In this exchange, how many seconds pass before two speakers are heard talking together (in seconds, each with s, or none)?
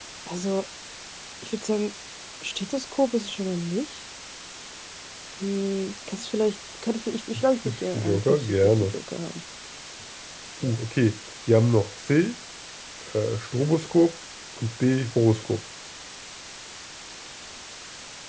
7.7 s